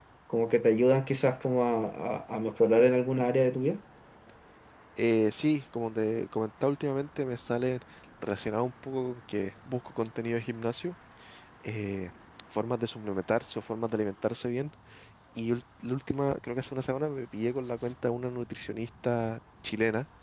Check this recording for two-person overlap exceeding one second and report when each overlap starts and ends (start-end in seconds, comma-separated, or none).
none